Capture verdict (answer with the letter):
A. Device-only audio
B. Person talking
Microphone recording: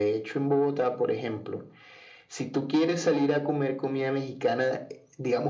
A